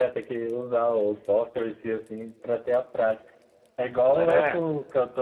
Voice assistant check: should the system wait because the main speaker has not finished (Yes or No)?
Yes